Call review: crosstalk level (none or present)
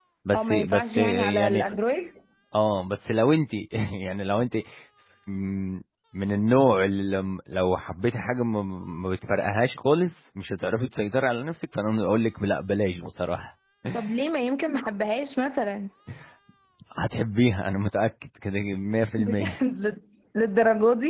present